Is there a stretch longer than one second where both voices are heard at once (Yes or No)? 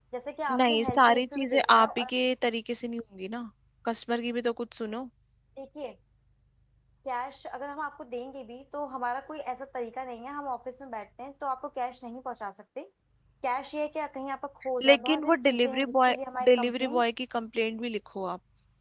Yes